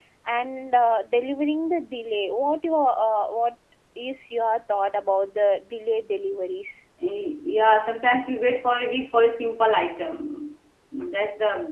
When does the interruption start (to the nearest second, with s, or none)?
none